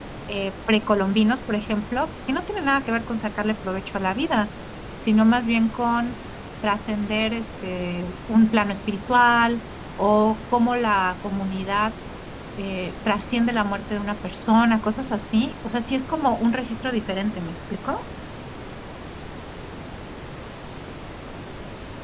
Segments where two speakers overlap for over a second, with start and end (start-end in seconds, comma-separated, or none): none